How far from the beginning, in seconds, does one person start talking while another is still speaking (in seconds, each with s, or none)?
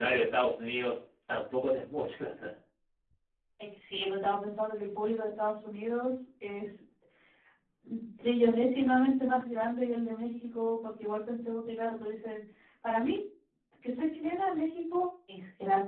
none